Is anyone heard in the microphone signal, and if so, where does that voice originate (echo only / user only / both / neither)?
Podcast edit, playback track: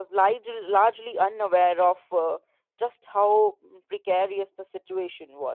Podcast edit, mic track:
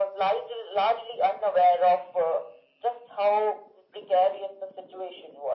echo only